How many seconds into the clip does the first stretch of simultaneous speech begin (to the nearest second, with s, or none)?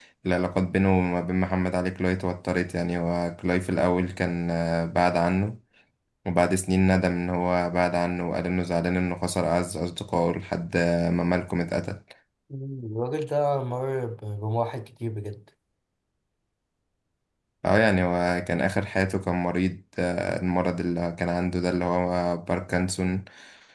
none